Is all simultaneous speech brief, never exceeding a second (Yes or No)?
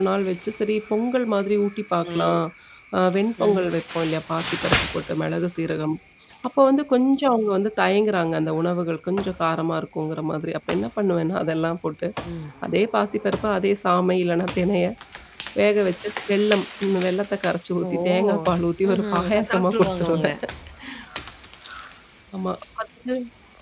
No